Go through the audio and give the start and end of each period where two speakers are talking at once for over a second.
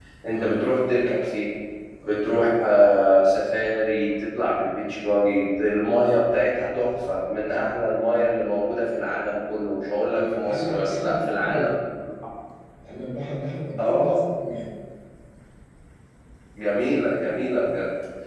10.1-11.7

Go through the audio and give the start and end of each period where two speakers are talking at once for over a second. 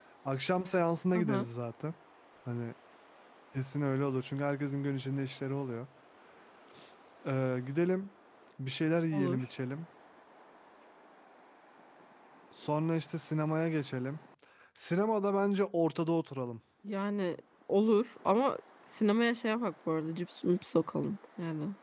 none

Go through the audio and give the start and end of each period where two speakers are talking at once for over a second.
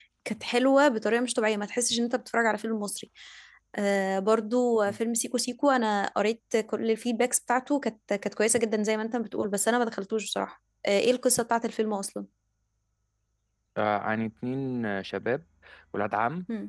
none

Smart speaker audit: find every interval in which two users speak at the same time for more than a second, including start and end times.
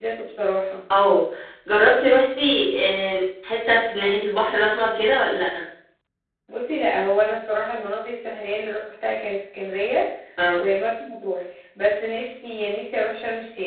none

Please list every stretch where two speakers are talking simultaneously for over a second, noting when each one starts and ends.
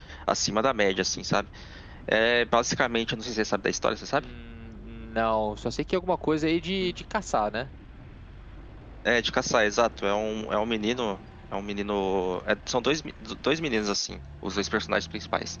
none

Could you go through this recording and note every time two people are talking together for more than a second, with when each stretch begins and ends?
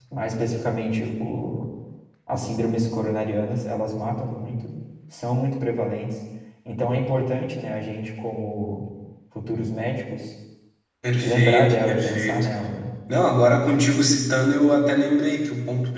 11.2-12.5

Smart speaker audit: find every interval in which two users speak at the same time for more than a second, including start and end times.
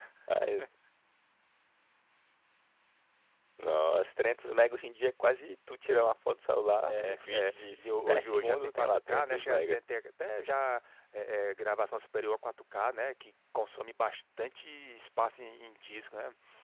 6.9-9.8

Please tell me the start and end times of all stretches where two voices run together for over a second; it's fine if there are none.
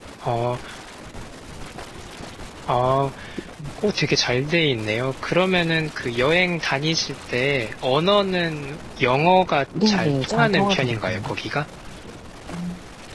9.9-11.3

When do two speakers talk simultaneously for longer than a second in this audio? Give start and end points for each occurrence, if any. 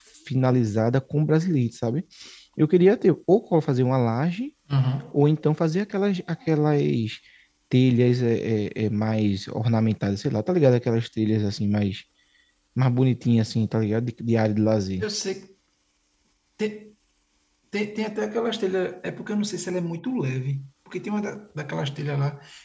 none

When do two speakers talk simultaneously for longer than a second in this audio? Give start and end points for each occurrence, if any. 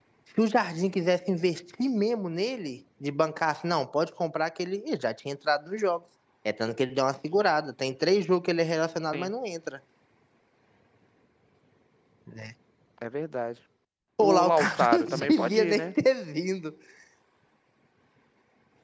14.2-15.9

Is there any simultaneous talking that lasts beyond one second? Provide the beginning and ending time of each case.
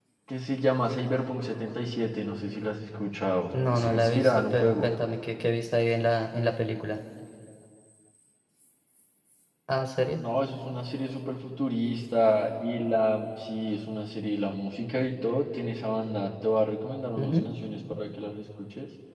3.7-5.0

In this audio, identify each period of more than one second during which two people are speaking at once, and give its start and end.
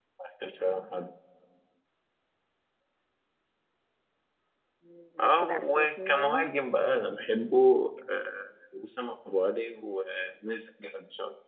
5.2-6.5

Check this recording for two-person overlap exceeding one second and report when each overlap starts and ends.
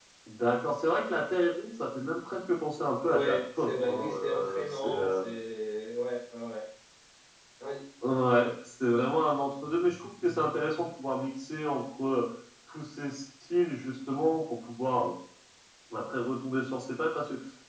3.0-5.2

